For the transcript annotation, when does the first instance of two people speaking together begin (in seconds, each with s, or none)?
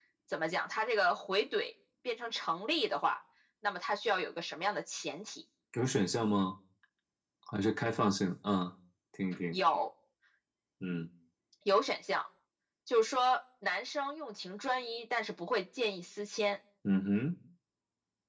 none